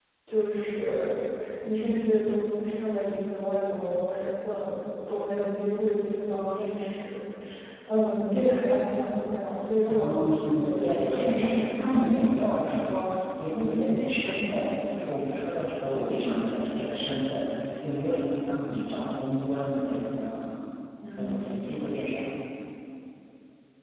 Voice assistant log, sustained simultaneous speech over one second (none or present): present